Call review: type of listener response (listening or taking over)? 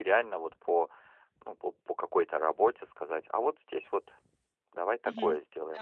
taking over